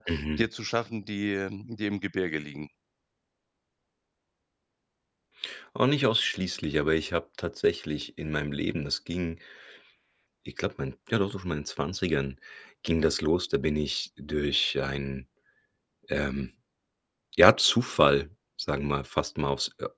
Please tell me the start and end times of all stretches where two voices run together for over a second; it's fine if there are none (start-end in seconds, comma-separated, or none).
none